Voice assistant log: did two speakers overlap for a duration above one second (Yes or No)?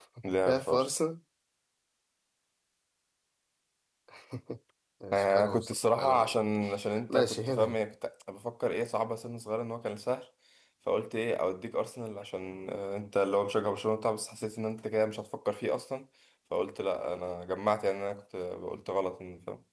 Yes